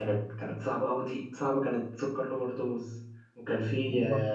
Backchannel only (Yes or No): Yes